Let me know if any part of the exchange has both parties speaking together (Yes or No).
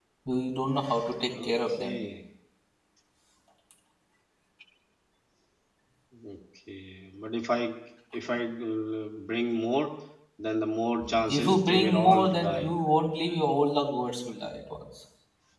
Yes